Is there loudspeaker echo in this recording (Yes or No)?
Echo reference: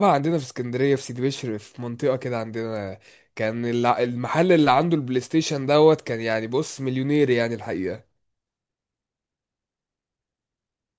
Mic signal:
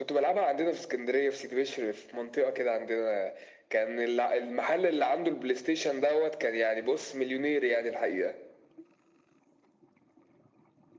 Yes